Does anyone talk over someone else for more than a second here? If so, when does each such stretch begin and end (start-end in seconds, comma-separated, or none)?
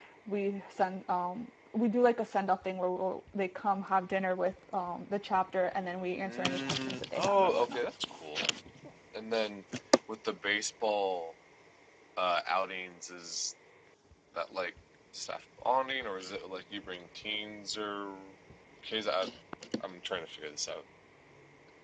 6.2-7.8